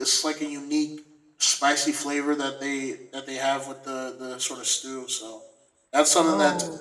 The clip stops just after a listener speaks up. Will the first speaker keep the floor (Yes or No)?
Yes